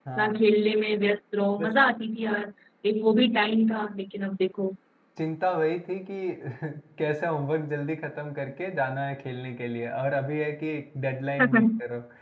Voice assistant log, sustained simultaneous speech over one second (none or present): none